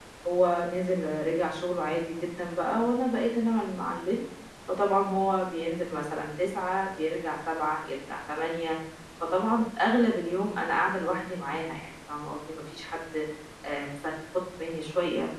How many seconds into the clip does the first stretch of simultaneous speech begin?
none

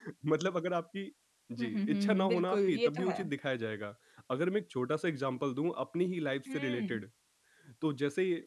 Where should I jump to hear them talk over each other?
1.6 s

